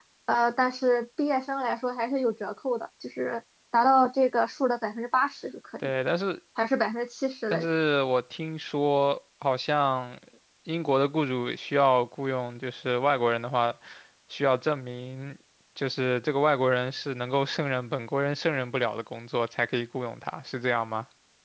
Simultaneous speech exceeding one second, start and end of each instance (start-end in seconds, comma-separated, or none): none